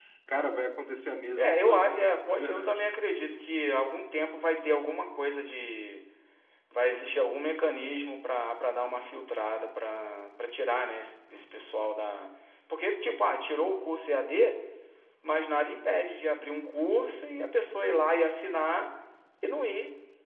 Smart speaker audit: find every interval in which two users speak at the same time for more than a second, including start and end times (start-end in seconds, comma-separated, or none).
1.4-2.9